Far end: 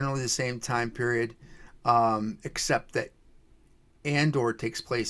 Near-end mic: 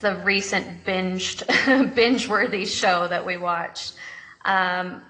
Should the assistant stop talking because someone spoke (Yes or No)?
Yes